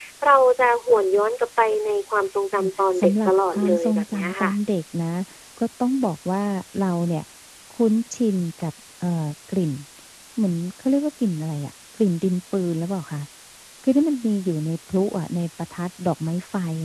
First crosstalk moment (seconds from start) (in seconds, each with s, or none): 2.6 s